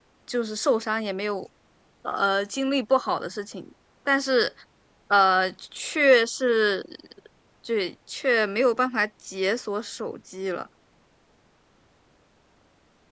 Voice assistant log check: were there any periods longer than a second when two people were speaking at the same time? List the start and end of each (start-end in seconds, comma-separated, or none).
none